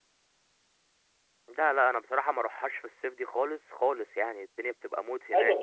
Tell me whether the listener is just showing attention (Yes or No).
No